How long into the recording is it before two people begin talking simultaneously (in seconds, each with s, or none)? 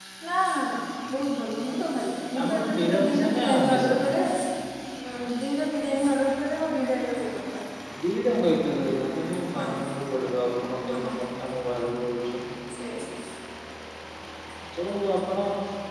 2.4 s